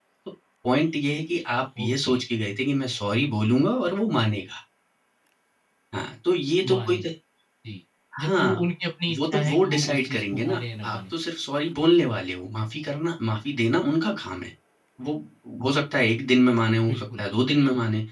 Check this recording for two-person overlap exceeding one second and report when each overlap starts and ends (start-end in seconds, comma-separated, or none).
9.2-11.0